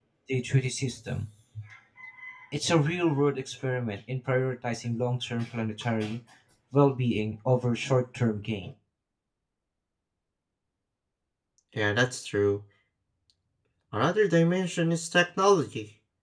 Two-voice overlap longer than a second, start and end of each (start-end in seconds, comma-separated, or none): none